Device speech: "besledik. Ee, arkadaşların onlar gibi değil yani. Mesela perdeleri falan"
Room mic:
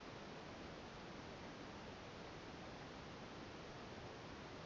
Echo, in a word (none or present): none